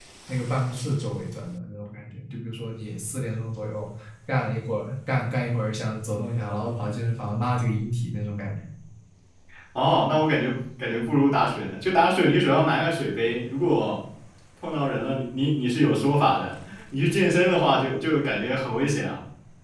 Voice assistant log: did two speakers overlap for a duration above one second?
No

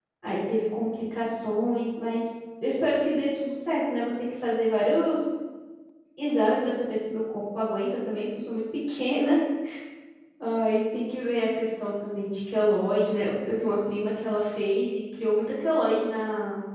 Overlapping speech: No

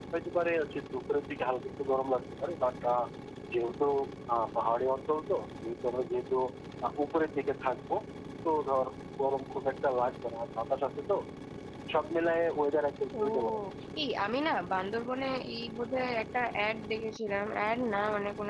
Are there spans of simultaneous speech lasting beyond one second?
No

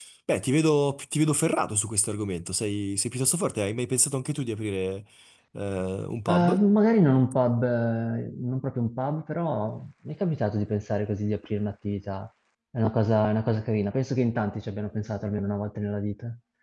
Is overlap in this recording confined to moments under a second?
Yes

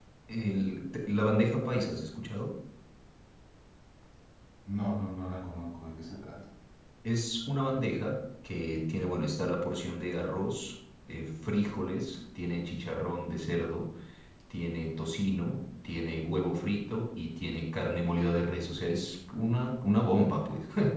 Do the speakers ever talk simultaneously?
No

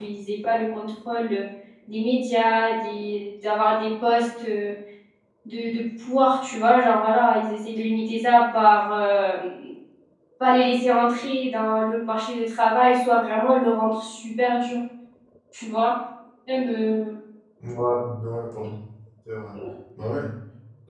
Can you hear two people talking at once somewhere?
No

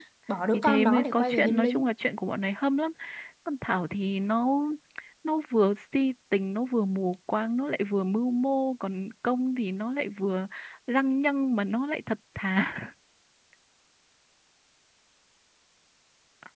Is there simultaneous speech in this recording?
Yes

